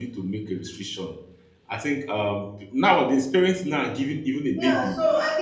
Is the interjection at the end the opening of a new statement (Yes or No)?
Yes